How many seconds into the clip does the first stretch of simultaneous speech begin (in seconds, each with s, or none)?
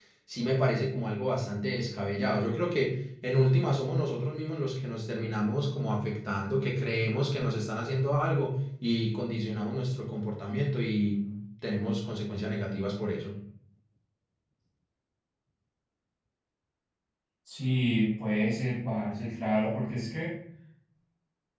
none